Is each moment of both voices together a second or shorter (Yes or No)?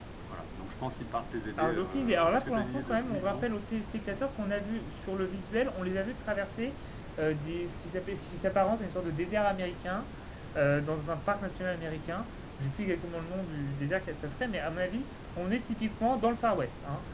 No